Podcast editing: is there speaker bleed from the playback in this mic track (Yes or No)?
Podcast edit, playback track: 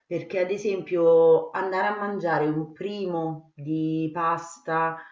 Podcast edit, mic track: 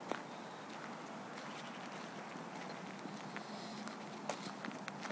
No